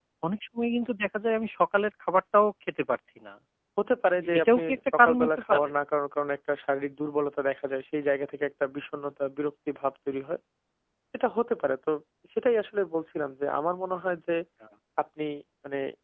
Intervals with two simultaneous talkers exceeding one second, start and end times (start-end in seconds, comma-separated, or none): 4.2-5.7